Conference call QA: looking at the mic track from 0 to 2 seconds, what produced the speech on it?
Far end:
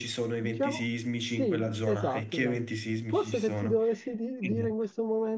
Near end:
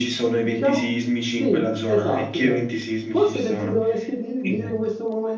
echo only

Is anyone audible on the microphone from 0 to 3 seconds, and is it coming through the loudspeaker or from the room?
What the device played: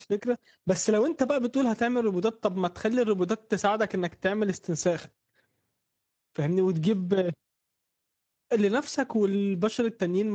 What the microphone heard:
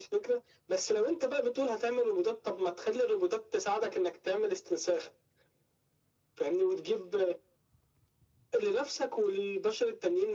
echo only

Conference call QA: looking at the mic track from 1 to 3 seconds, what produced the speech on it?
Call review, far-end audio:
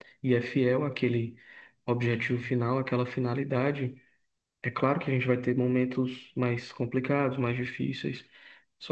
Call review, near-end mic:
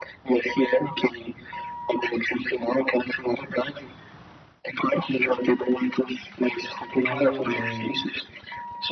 echo only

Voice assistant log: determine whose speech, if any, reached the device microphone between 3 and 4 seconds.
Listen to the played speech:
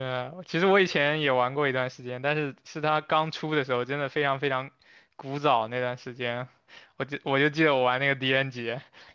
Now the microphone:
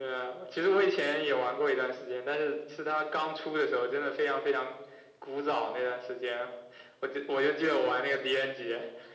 echo only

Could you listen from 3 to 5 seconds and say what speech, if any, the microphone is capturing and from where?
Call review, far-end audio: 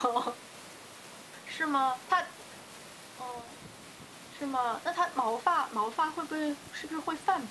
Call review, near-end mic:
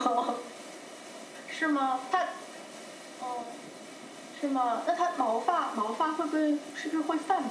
echo only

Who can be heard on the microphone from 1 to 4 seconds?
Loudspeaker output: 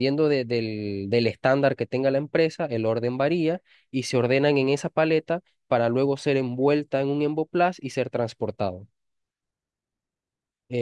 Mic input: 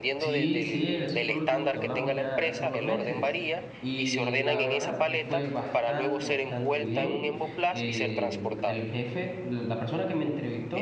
both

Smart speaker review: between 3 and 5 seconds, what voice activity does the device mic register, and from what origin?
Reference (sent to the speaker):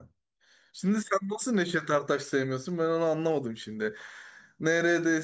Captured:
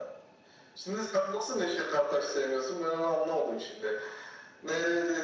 echo only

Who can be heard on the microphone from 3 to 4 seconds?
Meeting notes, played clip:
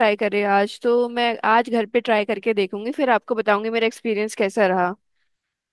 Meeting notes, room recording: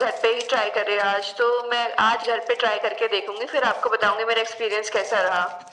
echo only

